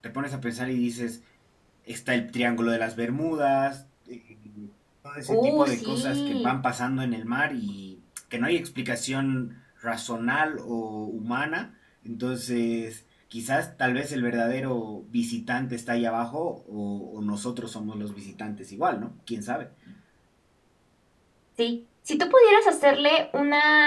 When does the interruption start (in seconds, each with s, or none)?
5.3 s